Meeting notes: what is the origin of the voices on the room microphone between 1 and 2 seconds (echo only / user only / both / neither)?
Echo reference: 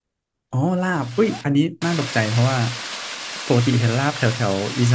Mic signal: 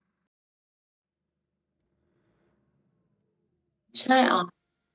neither